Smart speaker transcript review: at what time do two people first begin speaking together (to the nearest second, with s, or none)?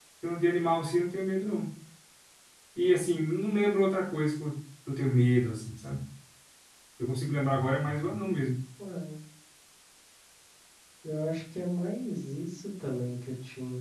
none